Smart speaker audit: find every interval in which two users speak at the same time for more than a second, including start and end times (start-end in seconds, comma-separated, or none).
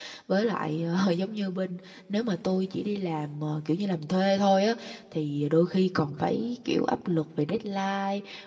none